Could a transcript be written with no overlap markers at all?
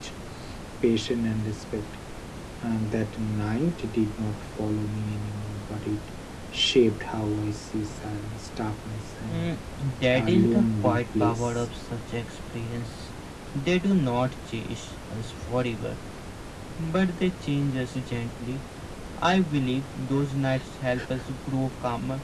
No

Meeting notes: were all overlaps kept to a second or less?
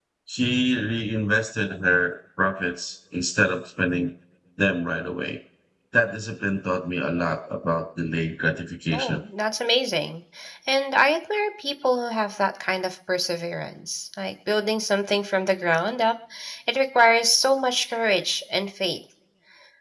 Yes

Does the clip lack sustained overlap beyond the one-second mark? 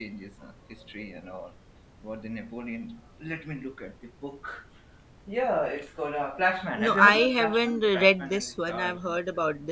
No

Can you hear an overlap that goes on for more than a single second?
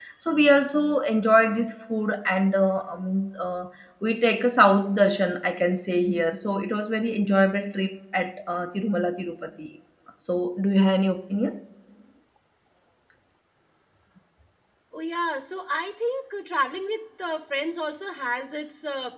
No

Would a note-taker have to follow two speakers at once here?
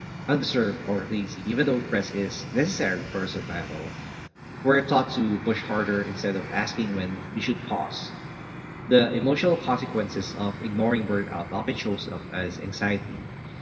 No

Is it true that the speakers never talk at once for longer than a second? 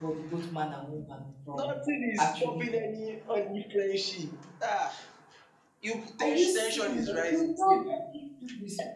No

